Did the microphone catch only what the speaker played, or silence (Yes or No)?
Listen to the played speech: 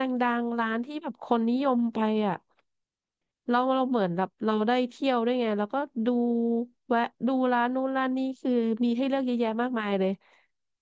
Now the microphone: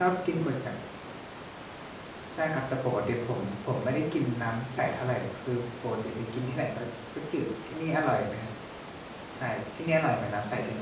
No